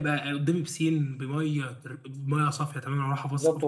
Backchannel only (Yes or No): No